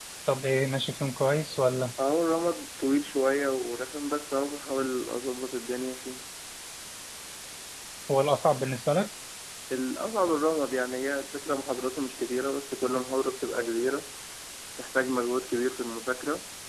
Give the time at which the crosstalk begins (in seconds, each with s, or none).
none